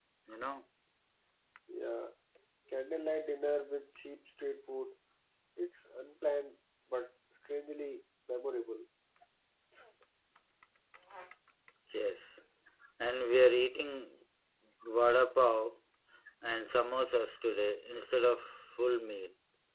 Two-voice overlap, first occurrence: none

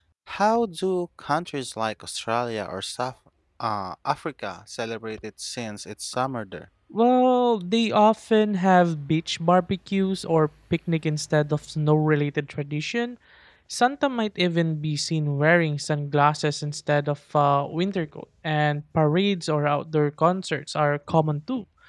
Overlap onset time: none

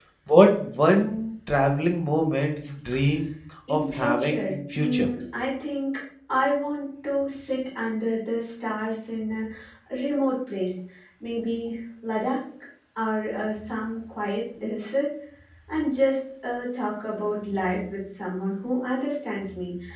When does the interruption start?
3.7 s

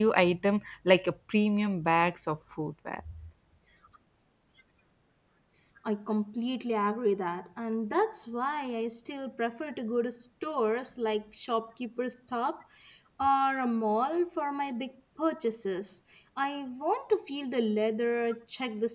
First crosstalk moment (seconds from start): none

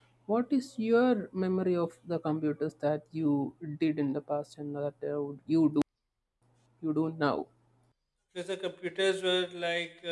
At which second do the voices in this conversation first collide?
none

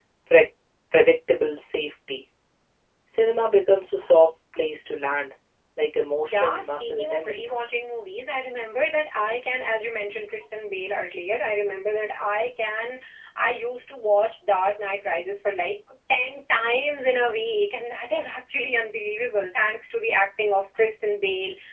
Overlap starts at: 6.2 s

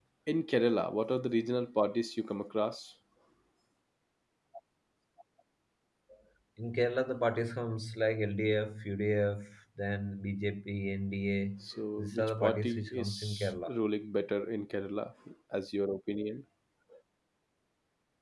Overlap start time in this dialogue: 12.0 s

